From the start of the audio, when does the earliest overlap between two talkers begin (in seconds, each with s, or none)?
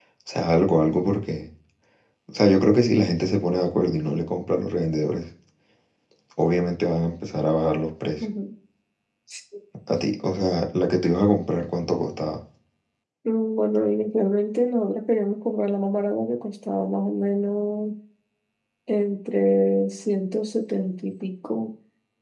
none